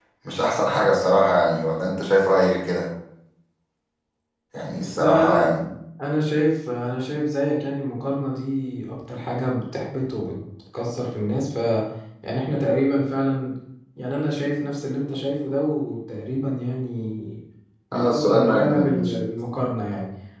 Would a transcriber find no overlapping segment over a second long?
No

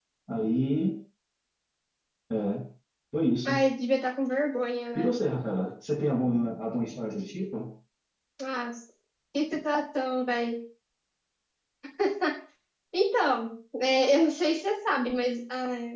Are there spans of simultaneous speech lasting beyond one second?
No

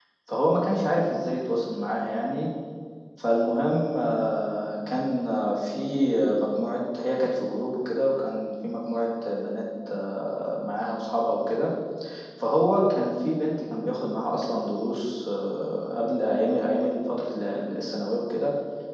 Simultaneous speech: No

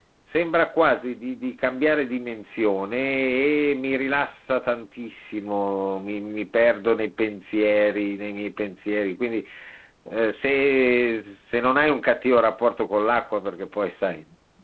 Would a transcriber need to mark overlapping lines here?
No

